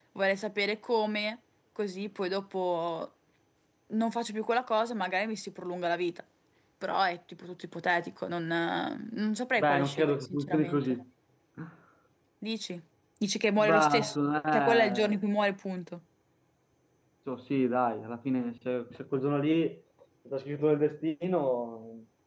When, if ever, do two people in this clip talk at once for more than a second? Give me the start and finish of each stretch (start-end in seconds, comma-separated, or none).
9.6-10.8, 13.6-15.2